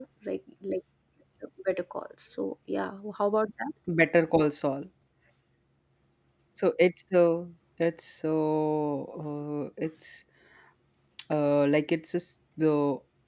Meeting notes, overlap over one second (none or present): none